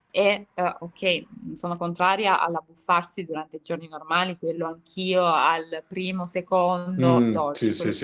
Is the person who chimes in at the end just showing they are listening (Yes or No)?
No